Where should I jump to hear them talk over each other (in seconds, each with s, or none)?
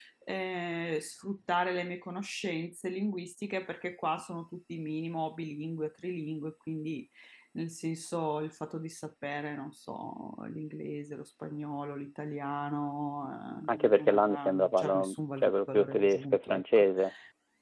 13.7 s